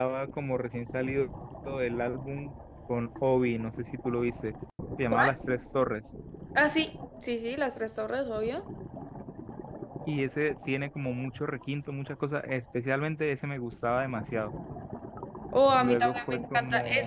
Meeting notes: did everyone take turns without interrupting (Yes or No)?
No